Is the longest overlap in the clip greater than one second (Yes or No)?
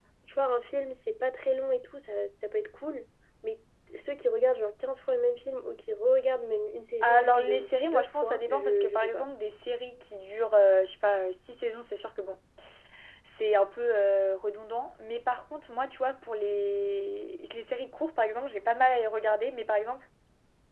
Yes